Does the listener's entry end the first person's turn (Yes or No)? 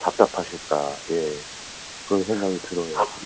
Yes